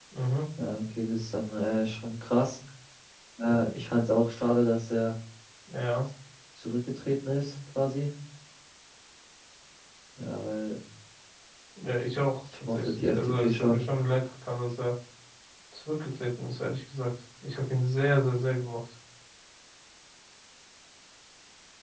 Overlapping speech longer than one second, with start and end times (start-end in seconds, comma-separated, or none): 12.5-13.8